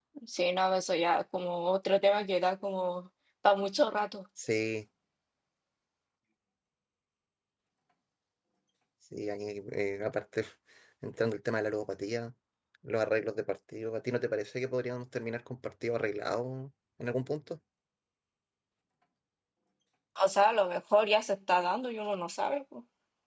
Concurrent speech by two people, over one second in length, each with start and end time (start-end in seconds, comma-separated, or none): none